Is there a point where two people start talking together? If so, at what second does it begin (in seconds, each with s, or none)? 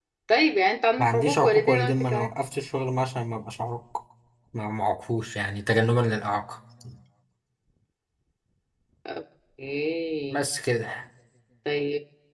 1.0 s